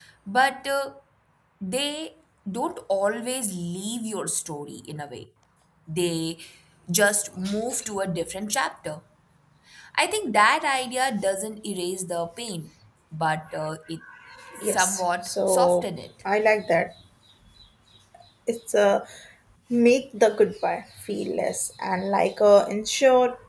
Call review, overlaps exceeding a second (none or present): present